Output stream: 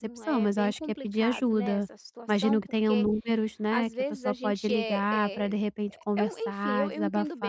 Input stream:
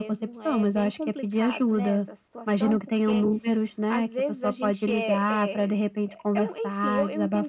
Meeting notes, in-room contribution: none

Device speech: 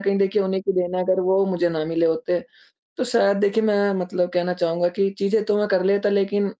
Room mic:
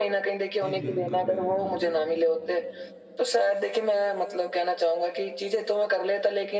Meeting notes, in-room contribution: present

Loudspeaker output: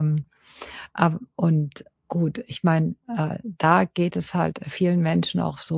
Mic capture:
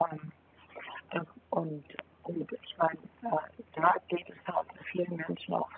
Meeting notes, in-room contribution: none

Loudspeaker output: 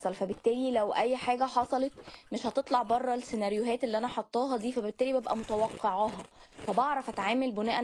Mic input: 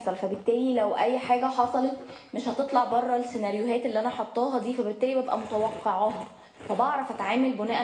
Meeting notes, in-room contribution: none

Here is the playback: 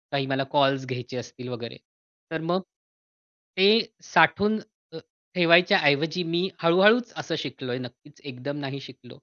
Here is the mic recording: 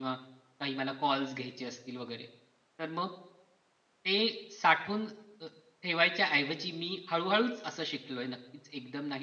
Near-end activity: none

